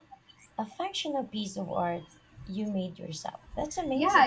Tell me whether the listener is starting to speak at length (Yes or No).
Yes